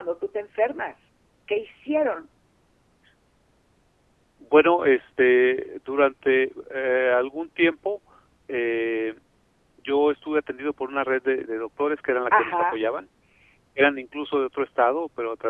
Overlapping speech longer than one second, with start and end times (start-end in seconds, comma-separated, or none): none